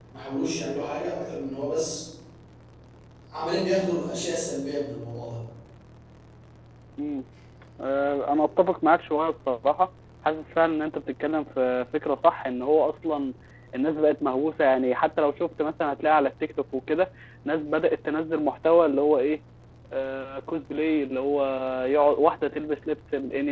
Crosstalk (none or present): none